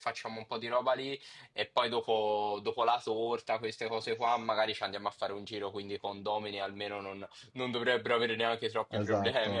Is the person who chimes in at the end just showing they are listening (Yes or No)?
No